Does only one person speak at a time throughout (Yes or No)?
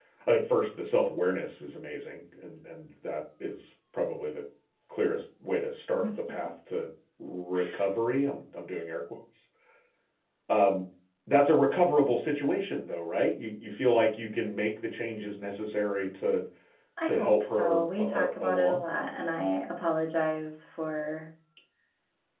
No